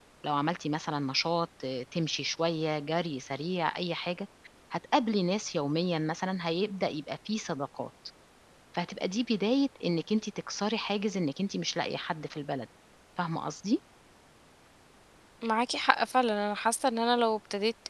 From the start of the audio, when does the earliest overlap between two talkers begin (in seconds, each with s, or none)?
none